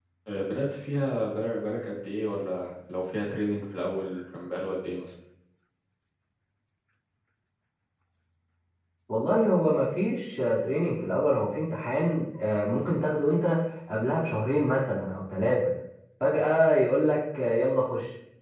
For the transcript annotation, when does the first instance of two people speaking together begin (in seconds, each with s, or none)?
none